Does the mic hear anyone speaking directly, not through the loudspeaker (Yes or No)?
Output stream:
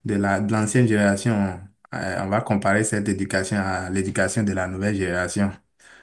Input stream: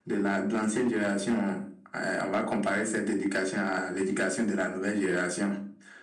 No